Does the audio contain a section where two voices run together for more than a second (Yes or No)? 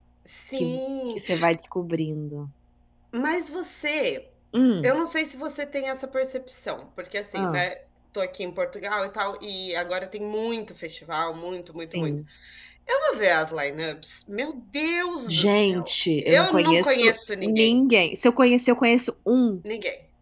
Yes